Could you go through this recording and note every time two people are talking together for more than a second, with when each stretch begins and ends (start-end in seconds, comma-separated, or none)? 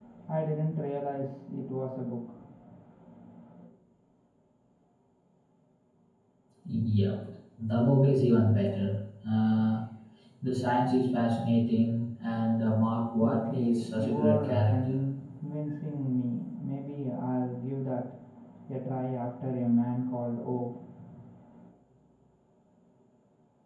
13.2-15.0